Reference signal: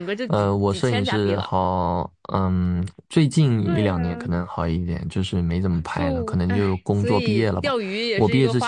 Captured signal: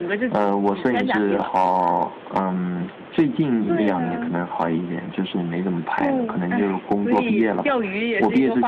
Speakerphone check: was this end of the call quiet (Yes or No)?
Yes